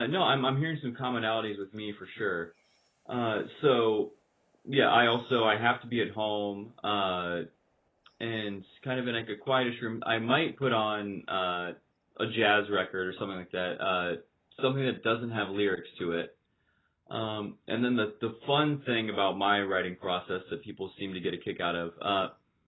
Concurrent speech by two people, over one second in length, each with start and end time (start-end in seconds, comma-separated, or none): none